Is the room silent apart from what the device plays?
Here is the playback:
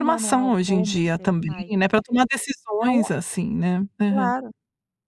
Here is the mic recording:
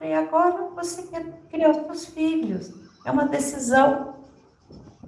No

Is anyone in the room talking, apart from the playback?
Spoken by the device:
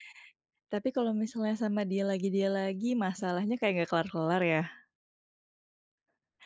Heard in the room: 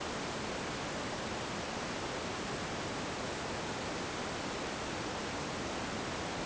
No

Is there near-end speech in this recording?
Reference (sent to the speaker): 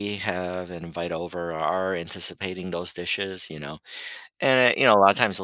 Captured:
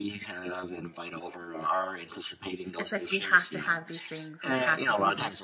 Yes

